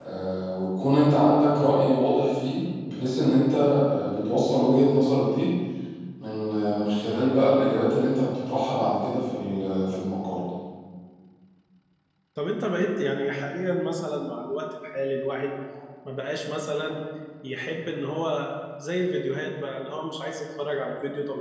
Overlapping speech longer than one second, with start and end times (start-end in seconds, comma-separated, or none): none